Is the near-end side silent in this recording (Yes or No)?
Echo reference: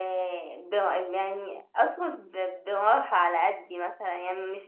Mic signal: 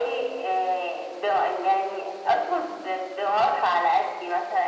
Yes